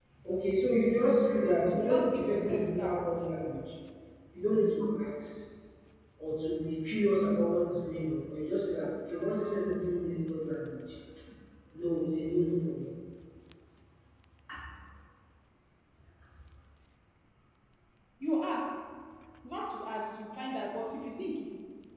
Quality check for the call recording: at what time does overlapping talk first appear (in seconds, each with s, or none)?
1.7 s